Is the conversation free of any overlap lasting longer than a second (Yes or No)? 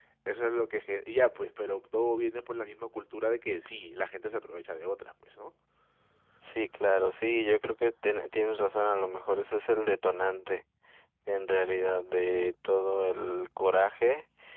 Yes